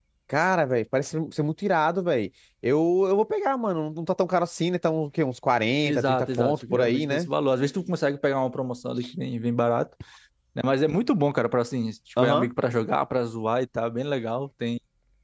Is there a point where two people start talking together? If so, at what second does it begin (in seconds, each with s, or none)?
5.8 s